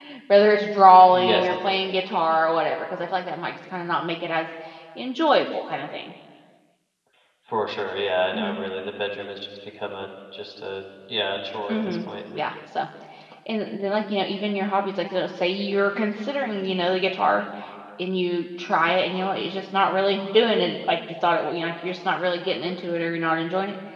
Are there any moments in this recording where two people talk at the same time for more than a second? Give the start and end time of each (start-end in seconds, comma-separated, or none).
none